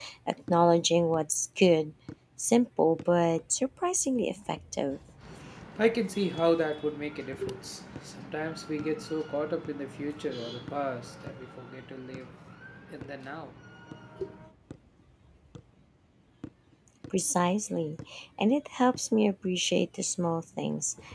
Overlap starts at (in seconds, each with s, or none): none